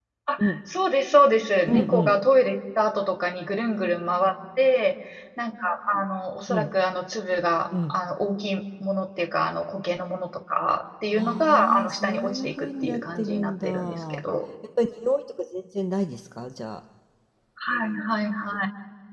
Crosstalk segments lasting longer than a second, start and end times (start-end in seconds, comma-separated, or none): 11.2-14.2